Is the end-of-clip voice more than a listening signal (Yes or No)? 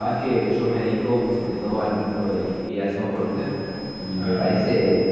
No